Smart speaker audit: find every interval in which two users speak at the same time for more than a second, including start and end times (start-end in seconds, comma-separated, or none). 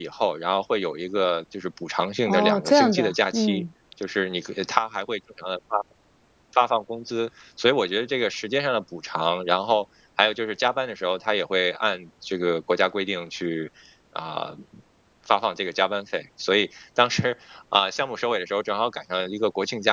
2.3-3.6